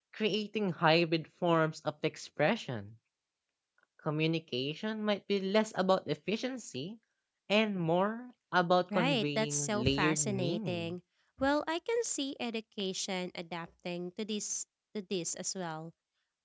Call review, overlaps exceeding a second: present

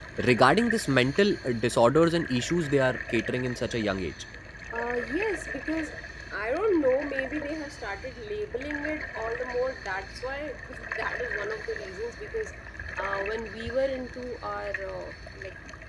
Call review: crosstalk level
none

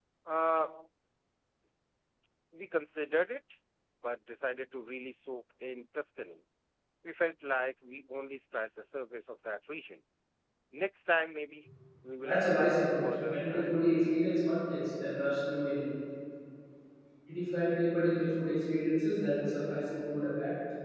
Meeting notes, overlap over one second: present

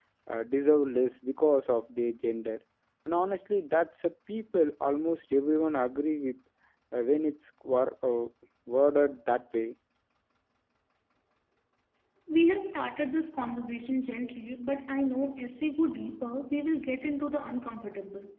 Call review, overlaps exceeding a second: none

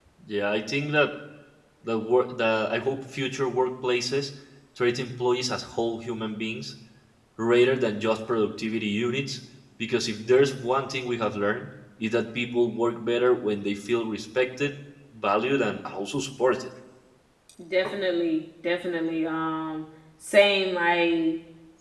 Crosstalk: none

